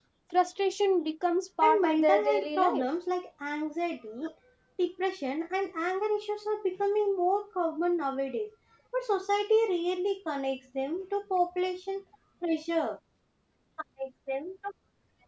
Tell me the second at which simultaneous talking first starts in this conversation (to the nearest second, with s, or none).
2 s